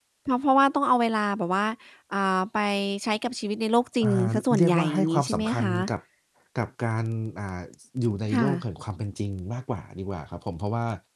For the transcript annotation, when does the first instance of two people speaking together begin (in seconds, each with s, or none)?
4.0 s